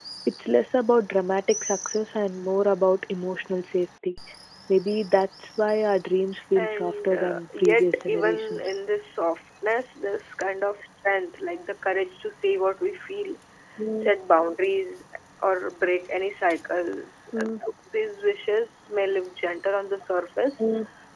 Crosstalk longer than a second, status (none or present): present